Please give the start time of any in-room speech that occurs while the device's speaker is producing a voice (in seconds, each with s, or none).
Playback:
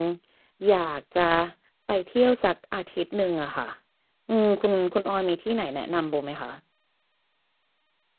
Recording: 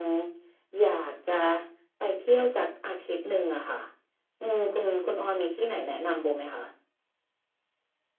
none